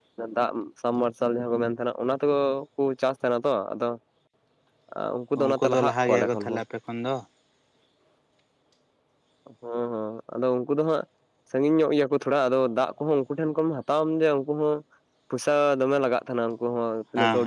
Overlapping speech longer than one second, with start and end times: 5.4-6.6

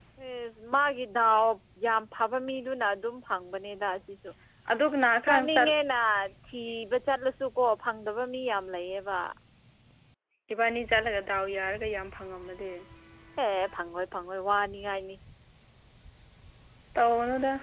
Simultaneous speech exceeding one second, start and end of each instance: none

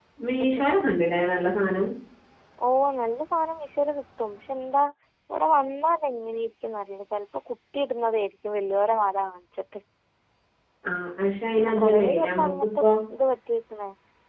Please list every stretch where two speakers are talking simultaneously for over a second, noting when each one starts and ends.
11.6-12.9

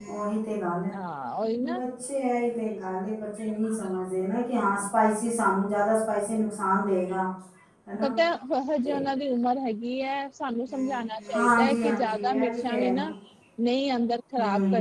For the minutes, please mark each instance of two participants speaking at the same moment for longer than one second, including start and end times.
11.3-13.0

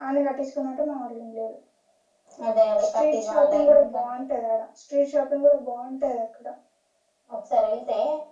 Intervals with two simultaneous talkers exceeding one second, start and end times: 2.8-4.1

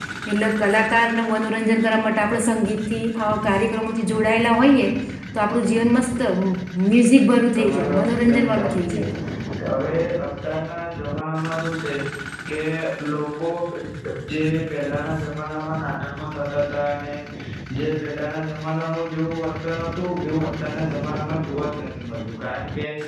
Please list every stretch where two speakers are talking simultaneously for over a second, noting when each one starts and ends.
7.1-9.0

